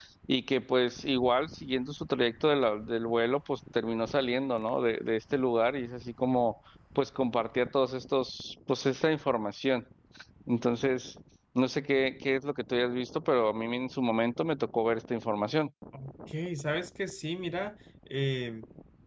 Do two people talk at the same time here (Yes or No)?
No